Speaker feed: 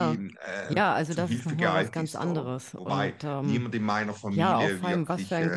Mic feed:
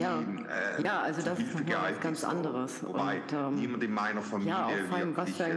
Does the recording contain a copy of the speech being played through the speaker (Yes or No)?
Yes